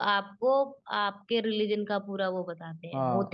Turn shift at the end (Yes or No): Yes